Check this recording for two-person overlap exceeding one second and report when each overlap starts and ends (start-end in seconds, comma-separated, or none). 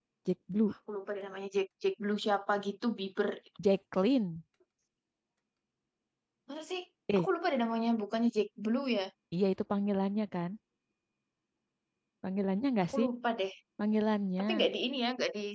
none